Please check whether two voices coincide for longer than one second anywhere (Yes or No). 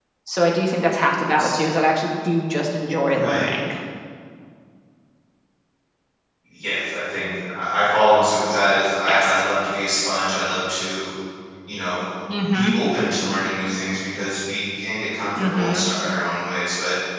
No